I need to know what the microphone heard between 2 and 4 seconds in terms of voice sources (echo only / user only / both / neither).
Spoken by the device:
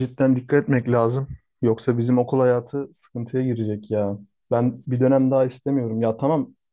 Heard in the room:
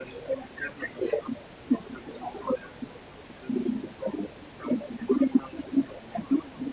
echo only